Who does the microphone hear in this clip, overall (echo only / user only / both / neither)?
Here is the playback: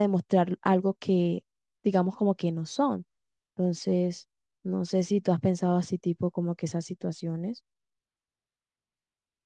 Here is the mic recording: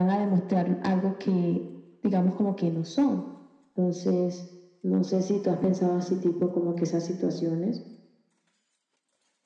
echo only